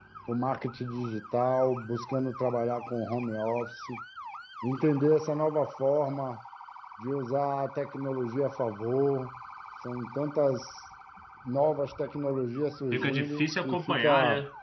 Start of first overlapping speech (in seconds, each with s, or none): 12.9 s